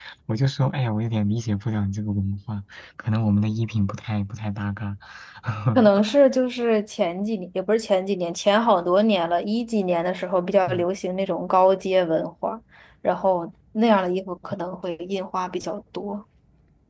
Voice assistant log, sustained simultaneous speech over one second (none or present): none